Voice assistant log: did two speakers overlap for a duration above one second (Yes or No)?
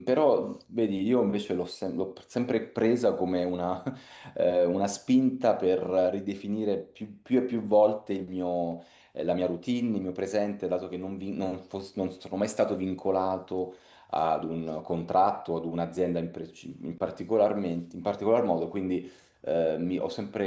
No